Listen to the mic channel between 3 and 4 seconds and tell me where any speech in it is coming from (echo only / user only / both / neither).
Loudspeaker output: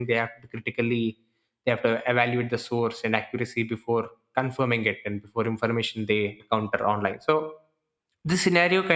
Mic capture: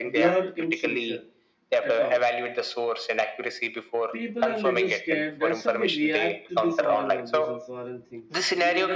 echo only